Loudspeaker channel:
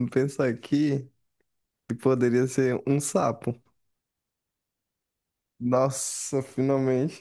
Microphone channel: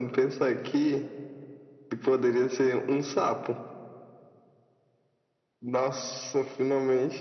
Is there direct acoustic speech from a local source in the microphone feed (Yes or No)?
No